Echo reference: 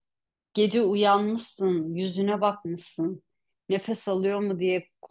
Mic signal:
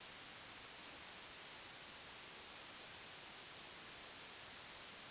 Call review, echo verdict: none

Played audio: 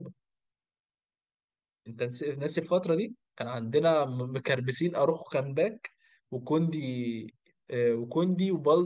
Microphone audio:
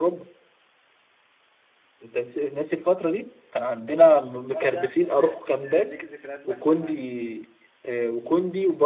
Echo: present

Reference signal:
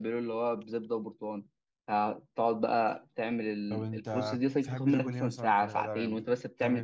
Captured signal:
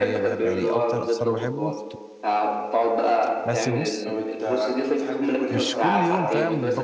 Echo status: present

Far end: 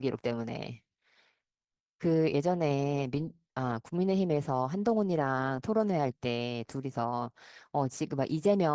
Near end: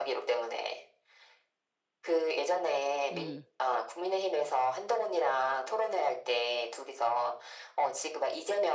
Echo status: present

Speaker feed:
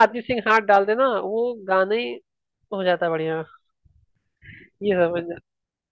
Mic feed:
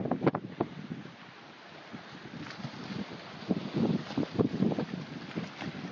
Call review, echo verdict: none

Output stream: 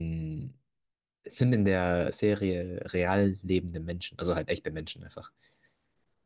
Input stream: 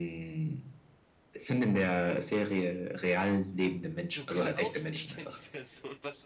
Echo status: present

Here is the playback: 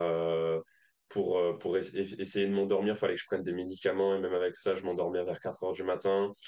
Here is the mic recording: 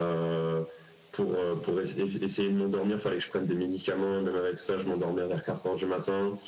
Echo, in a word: present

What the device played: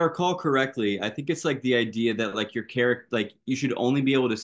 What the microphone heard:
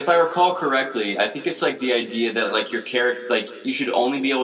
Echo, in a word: present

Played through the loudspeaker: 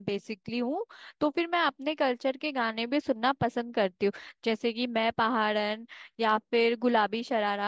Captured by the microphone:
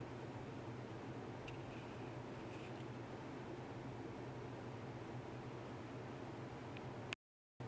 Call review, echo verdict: none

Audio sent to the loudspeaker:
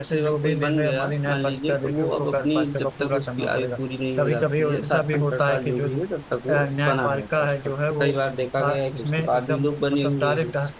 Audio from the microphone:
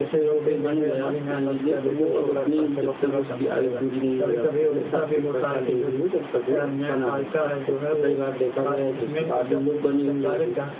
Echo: present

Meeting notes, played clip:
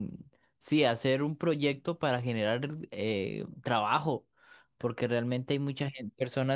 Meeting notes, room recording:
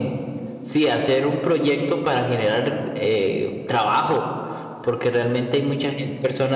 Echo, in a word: present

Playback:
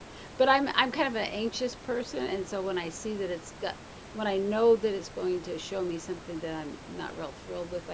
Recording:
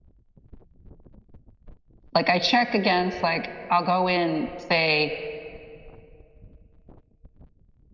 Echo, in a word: none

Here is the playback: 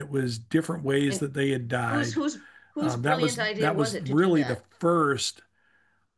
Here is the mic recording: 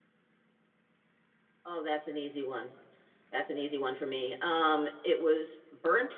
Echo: none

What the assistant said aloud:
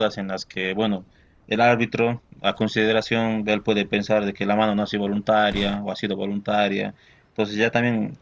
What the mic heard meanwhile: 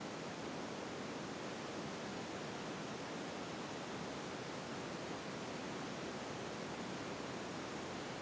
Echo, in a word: none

